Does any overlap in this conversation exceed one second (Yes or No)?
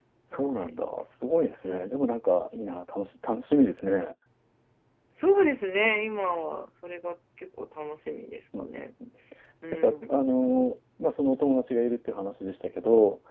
No